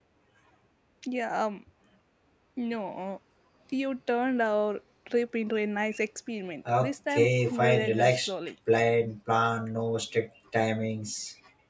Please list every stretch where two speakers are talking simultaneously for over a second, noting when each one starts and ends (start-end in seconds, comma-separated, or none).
6.8-8.3